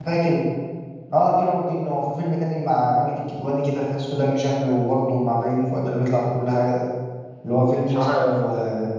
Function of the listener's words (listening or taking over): listening